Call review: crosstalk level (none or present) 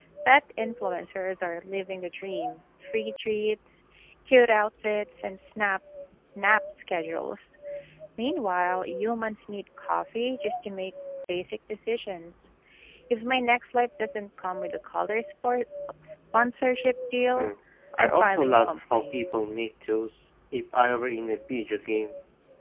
present